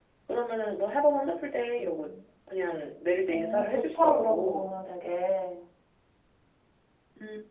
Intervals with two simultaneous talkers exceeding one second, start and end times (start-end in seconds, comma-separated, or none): 3.3-4.7